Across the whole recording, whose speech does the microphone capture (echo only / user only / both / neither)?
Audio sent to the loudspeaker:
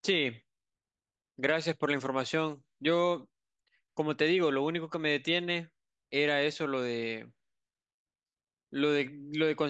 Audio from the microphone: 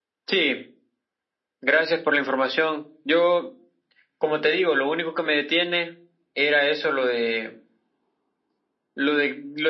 echo only